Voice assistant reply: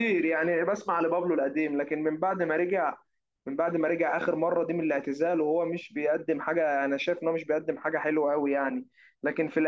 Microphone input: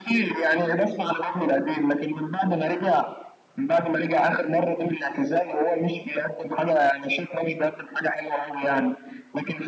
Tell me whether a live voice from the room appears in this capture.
No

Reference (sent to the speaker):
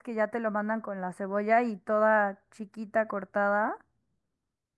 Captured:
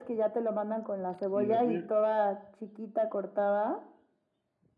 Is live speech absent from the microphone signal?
No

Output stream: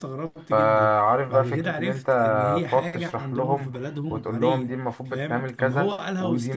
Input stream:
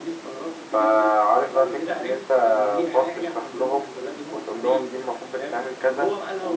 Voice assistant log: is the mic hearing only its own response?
Yes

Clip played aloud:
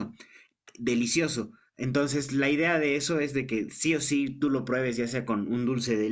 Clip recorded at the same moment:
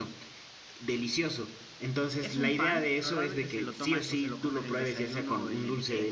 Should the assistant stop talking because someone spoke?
Yes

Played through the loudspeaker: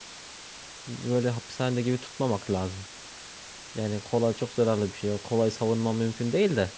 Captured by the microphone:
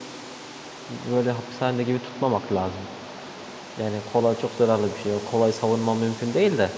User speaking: No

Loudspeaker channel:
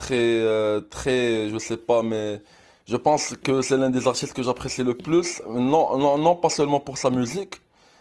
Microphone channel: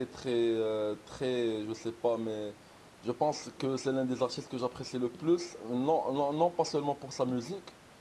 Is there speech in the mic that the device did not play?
No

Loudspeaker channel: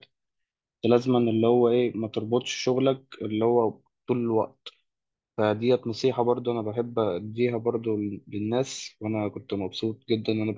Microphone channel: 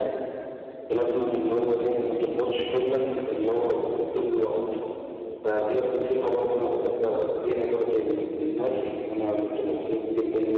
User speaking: No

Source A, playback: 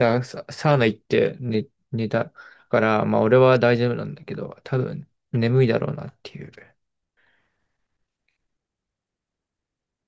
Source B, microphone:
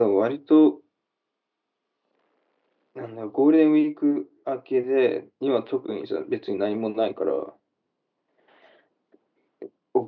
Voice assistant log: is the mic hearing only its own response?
No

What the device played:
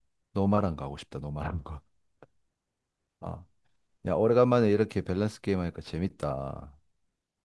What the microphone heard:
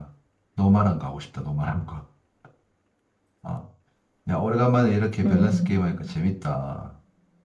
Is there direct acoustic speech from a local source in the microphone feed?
Yes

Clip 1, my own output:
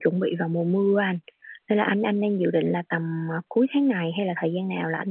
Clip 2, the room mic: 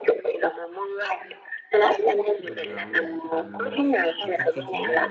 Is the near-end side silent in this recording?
No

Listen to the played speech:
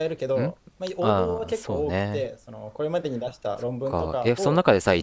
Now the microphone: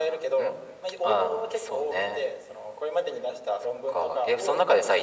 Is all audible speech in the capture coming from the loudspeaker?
Yes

